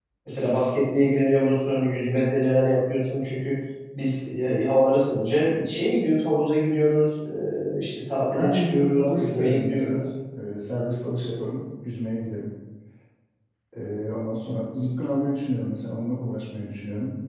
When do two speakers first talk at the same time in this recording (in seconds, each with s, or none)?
8.2 s